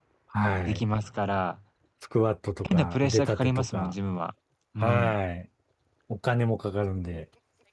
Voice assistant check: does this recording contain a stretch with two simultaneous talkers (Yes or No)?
Yes